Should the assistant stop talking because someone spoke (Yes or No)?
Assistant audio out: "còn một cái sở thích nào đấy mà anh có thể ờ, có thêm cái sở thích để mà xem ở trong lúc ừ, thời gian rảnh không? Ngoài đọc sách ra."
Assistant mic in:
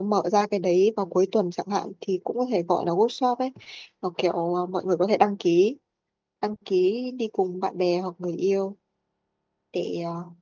Yes